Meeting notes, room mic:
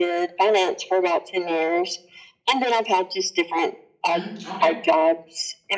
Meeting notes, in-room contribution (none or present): present